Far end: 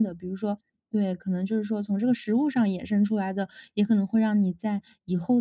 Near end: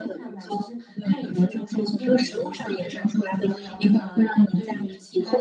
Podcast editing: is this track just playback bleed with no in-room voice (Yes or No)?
No